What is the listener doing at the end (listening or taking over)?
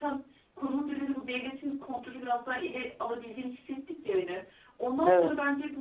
listening